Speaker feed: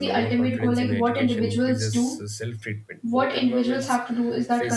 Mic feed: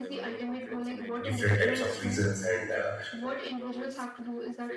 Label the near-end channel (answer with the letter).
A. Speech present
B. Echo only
A